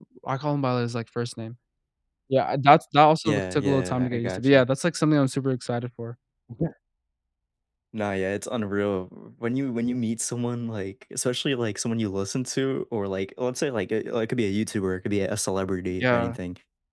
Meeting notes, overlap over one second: present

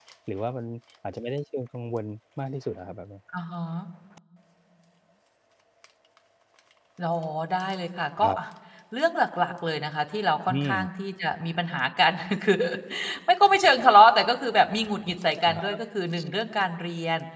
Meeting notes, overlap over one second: none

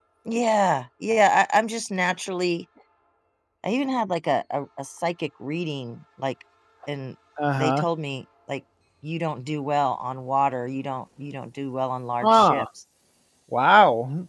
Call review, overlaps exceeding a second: none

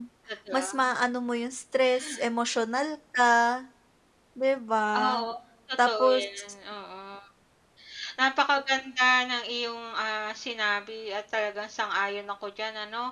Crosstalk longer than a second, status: none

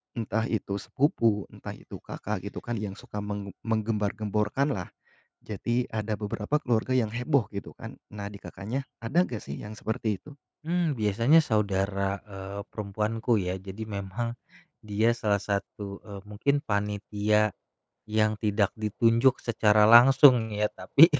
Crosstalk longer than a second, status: none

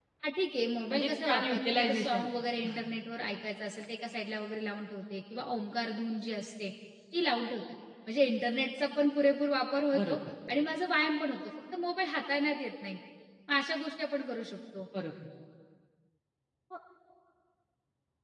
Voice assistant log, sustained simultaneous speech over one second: present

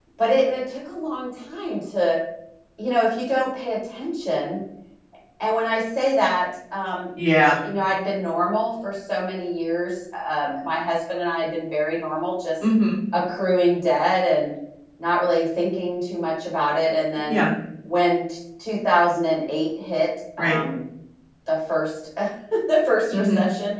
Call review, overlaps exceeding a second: none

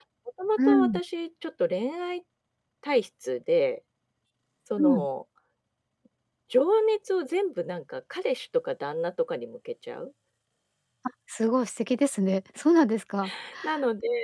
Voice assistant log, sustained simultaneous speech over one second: none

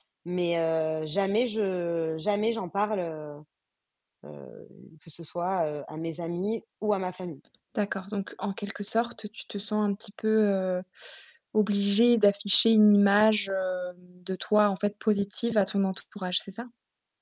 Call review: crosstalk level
none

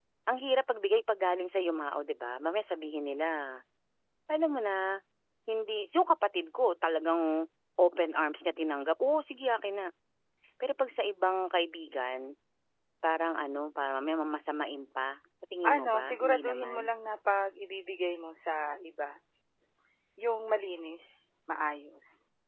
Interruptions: present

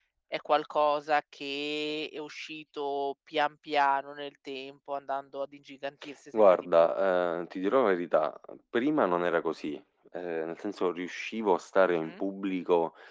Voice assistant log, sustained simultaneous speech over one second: none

